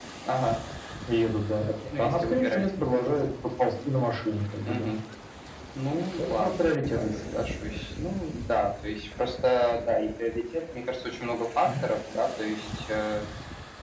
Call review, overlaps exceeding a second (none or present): present